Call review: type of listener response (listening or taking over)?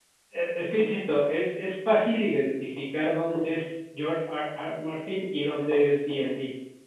listening